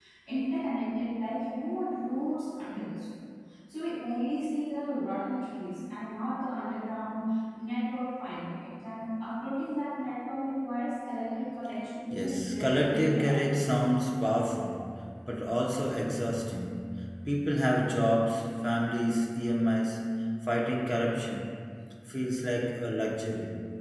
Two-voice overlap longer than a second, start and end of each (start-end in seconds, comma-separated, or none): 12.1-13.7